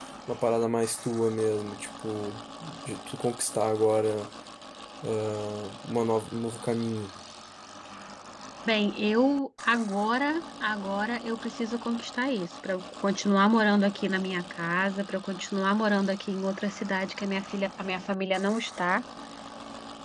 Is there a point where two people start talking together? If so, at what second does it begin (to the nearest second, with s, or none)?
none